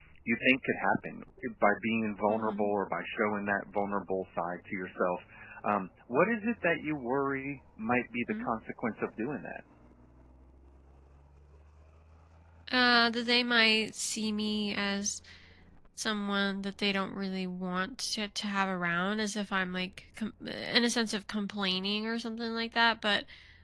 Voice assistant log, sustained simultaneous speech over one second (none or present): none